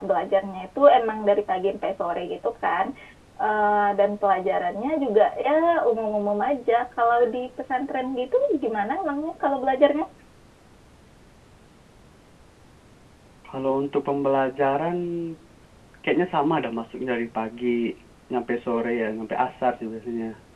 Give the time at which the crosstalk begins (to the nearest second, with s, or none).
none